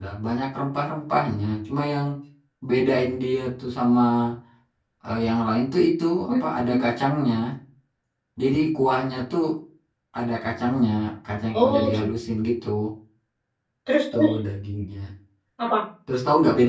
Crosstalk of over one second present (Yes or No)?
No